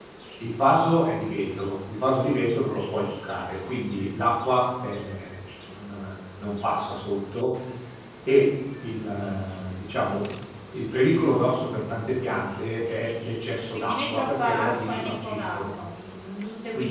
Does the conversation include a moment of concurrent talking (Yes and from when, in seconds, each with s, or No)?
Yes, from 13.7 s